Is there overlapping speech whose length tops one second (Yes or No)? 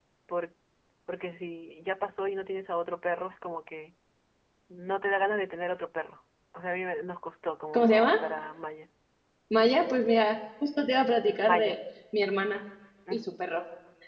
No